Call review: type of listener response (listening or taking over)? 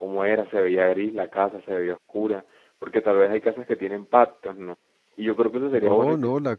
taking over